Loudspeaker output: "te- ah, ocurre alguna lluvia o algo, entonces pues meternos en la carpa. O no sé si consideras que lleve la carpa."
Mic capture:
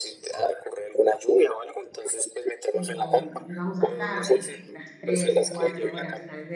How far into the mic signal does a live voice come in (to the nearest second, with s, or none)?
3 s